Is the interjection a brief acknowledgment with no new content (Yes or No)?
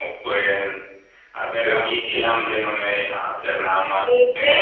Yes